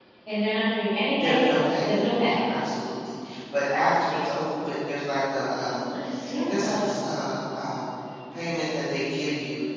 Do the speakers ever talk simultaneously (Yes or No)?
Yes